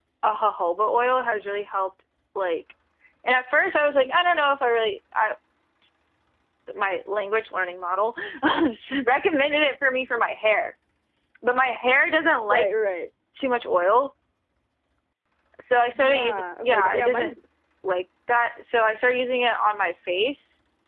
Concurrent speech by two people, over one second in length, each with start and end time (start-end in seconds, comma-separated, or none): 15.9-17.3